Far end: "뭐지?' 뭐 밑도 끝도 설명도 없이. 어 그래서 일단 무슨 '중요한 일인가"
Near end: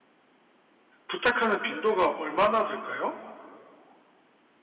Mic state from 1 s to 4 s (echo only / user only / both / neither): user only